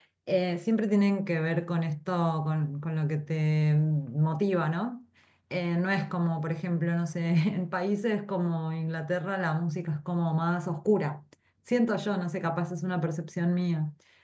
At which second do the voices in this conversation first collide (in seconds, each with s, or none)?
none